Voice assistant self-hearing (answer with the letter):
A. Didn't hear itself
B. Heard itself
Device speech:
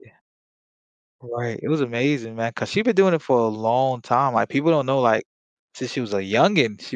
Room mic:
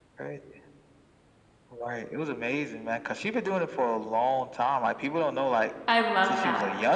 B